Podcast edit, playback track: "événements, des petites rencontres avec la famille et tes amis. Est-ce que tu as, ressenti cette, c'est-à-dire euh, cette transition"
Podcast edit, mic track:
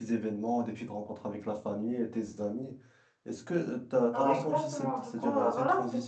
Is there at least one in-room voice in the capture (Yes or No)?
Yes